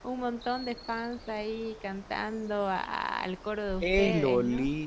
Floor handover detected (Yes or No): Yes